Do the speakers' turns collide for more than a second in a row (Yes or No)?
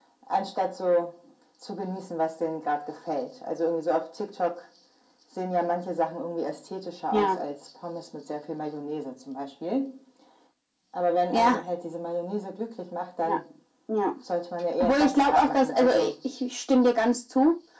Yes